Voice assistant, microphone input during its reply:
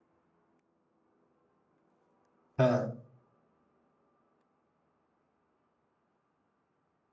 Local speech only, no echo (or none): हाँ